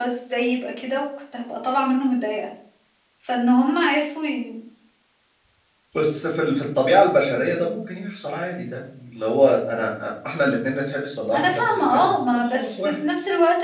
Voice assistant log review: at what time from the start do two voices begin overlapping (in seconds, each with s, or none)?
11.3 s